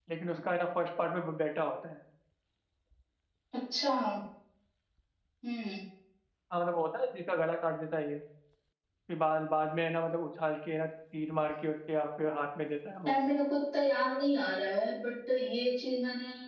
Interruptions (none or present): none